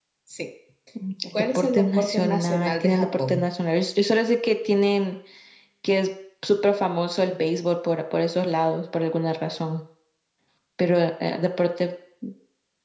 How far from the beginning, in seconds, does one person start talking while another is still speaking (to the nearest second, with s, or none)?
2 s